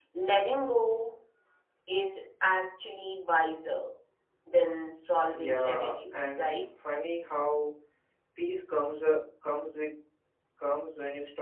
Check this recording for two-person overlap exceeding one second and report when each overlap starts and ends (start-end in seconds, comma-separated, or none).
5.3-6.5